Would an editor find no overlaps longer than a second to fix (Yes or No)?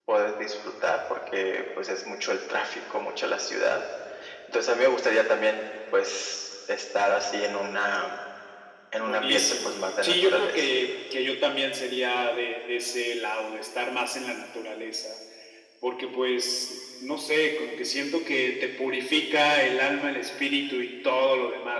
No